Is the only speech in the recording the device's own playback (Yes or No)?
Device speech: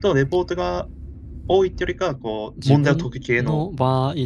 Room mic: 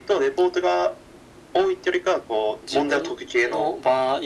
Yes